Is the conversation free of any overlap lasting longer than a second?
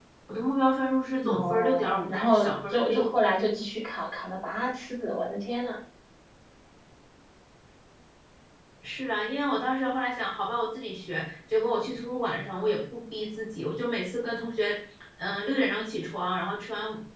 No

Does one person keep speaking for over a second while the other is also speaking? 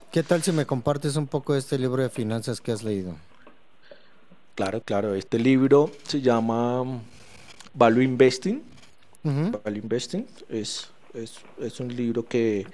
No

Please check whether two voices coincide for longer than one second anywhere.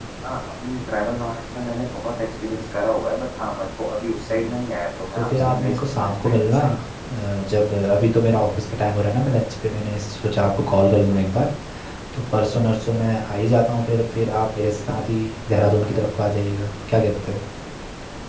Yes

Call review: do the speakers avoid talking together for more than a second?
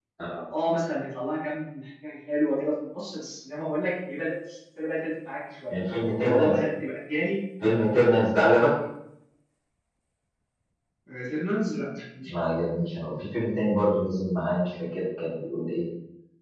Yes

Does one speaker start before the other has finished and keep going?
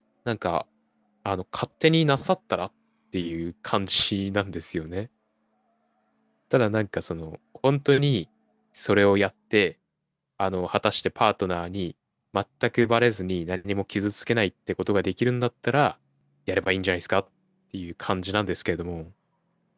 No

